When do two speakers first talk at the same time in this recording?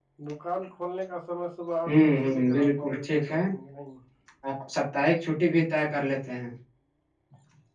1.8 s

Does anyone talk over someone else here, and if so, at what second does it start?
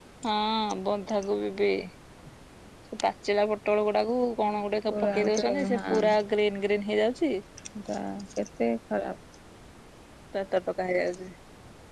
4.9 s

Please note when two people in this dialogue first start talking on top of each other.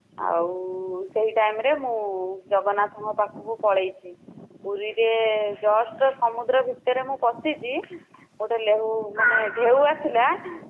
none

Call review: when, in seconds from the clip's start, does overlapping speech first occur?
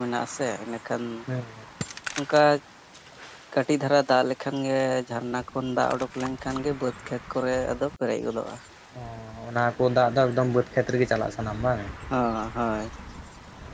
none

